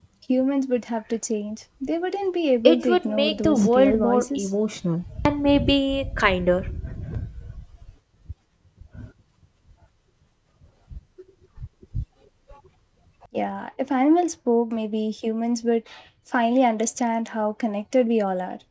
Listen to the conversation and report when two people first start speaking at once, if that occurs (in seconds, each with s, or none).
2.6 s